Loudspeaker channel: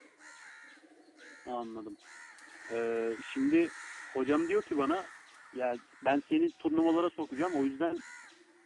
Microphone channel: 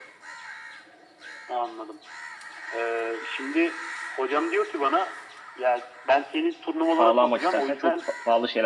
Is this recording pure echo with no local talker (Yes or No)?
No